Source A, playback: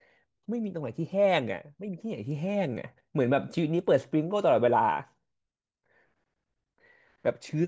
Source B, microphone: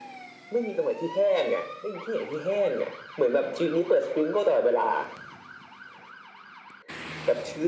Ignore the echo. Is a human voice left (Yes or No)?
No